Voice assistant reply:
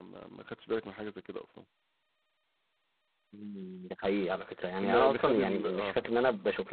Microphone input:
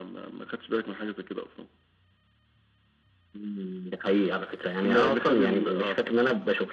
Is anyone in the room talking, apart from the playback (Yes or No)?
No